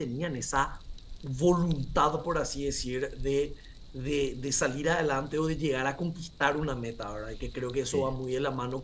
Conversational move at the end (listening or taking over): listening